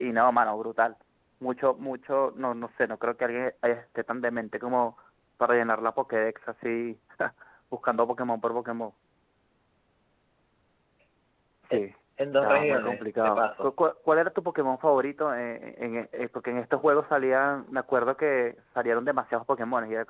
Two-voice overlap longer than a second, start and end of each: 12.4-13.7

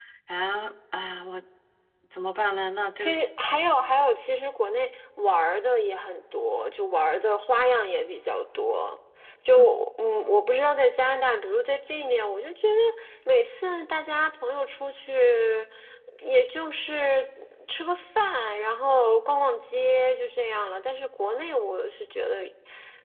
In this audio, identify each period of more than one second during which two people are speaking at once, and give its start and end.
none

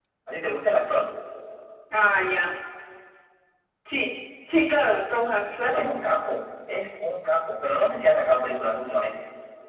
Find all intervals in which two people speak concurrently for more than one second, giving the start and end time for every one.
none

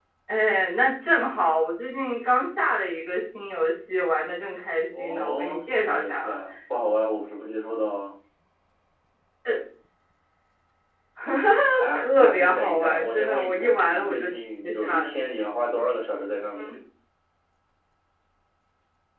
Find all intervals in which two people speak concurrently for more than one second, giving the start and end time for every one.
4.9-6.4, 11.9-15.2

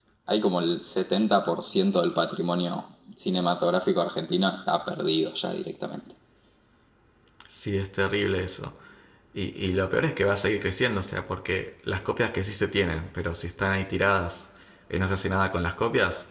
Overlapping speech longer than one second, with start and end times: none

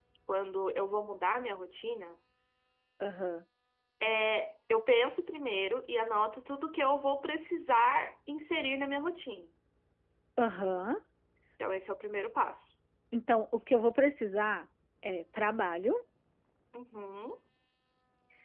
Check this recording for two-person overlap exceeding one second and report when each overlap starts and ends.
none

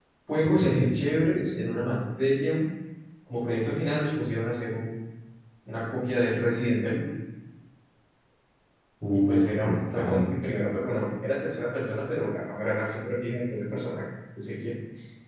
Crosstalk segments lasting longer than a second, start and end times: 9.1-10.3

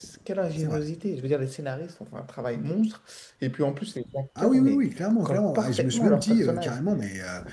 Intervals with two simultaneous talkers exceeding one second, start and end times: 5.2-6.8

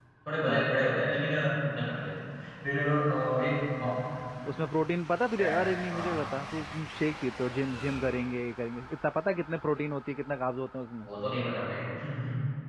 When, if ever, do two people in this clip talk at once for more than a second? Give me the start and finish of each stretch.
none

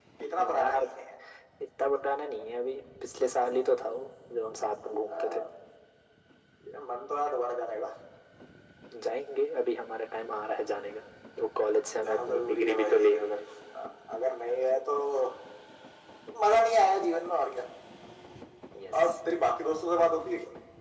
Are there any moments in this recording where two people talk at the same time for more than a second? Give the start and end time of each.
12.0-13.4

